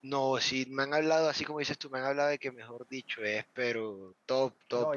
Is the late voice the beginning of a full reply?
Yes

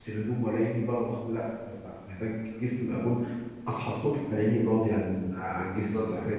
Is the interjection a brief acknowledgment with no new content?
No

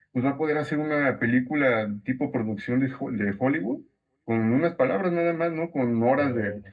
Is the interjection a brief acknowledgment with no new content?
Yes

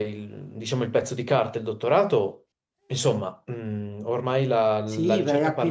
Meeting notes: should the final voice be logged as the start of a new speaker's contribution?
Yes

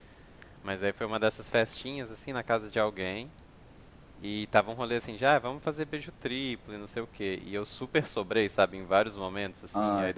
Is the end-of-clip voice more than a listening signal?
No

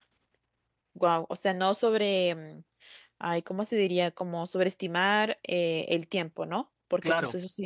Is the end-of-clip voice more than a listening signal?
No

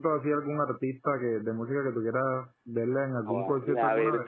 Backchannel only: No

